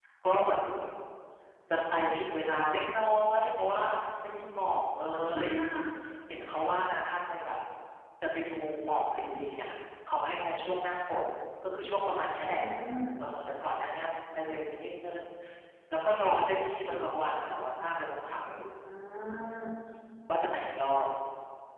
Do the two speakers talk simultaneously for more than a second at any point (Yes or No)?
No